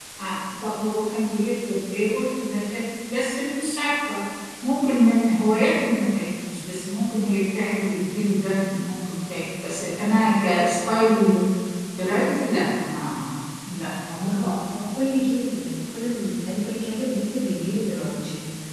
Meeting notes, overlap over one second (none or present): none